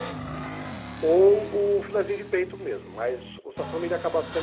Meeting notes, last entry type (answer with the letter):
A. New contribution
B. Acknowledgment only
B